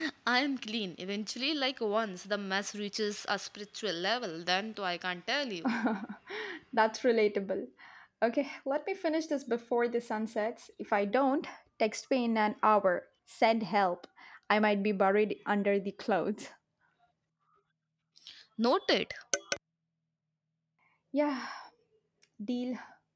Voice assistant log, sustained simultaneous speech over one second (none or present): none